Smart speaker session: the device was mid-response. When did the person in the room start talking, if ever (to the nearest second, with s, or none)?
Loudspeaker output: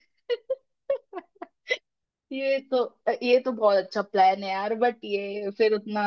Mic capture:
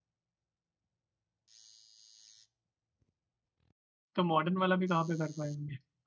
4 s